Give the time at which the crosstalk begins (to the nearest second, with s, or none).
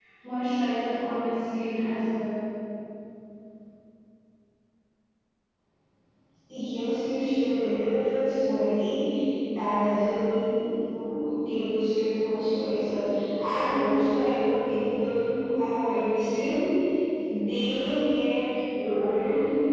none